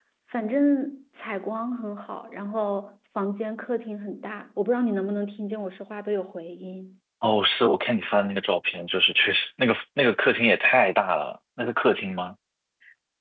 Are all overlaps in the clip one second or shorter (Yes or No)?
Yes